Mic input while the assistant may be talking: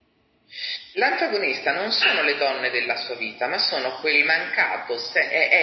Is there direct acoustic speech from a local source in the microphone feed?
No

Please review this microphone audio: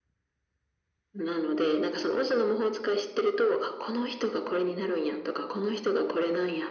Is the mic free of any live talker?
Yes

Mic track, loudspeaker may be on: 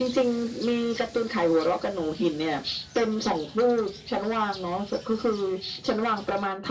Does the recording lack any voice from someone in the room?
Yes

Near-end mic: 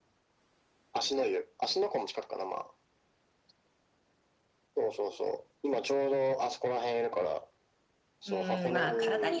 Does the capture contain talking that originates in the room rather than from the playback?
Yes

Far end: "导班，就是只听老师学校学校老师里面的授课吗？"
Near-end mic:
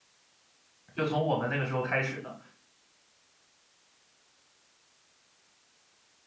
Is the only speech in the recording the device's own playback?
No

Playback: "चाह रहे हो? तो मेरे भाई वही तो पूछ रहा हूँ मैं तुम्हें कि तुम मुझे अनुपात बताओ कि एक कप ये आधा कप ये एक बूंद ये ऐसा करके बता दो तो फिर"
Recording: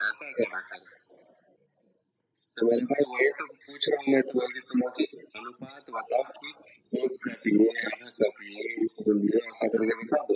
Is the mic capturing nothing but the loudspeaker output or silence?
Yes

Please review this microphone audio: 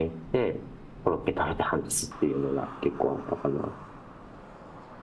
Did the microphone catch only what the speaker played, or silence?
Yes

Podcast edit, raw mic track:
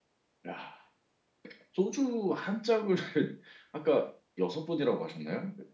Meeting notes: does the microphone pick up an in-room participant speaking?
Yes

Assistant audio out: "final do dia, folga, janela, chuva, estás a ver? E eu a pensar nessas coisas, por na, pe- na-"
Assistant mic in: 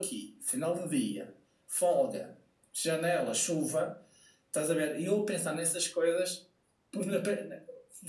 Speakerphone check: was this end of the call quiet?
Yes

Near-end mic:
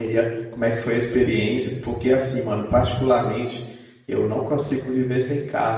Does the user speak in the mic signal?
Yes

